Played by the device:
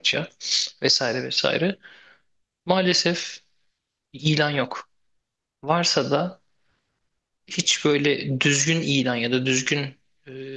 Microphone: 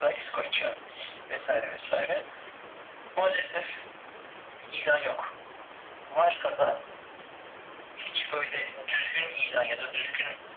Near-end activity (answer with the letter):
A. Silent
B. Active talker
A